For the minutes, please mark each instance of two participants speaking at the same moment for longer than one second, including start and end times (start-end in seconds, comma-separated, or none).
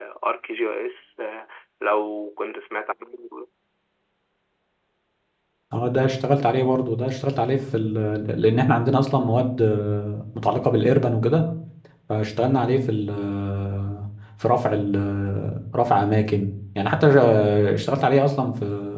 none